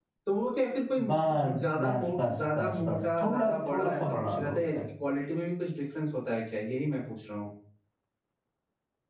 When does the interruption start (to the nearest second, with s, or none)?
1 s